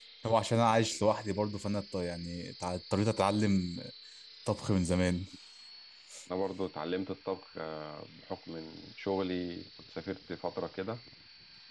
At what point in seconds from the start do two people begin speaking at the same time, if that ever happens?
none

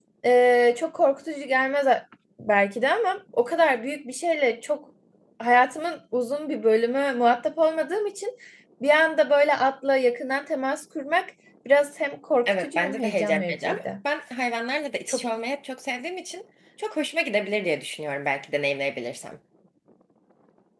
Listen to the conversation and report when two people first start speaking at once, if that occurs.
12.5 s

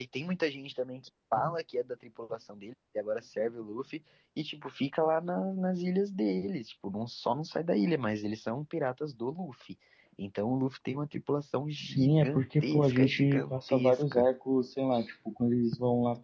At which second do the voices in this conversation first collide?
11.8 s

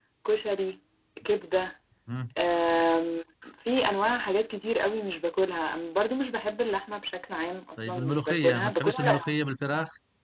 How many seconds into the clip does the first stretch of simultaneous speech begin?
7.8 s

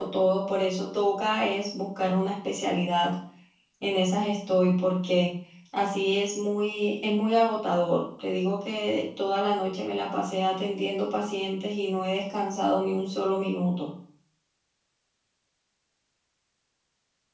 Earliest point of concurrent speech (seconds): none

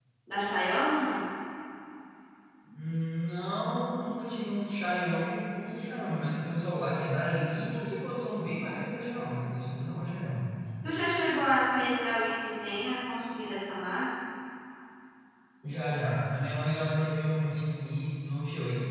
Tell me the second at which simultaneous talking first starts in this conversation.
none

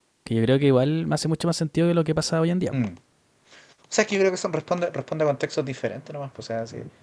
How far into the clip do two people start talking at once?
none

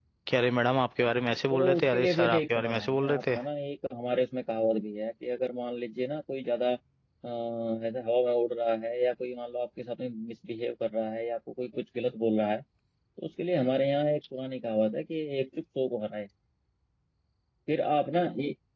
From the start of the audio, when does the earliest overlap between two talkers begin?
1.5 s

